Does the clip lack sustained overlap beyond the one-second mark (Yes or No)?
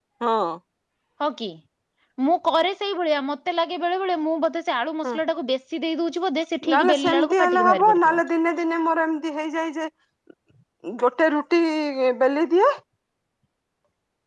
No